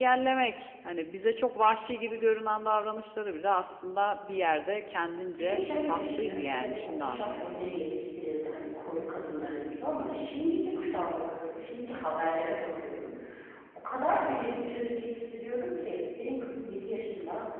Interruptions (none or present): present